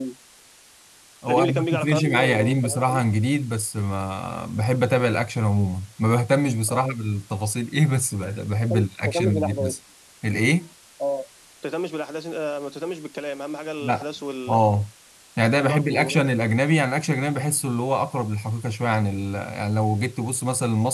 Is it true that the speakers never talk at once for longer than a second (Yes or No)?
No